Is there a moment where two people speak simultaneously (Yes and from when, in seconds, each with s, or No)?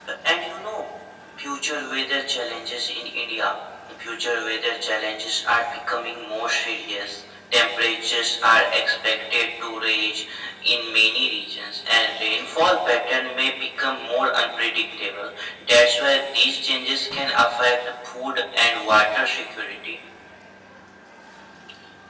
No